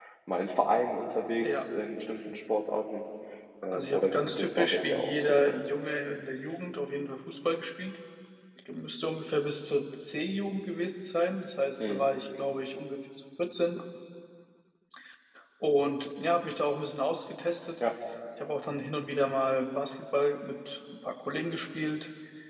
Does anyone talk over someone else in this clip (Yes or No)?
Yes